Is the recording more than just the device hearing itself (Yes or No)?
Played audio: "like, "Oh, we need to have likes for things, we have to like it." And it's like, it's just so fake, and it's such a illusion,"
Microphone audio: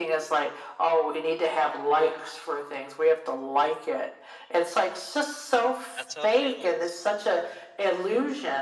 Yes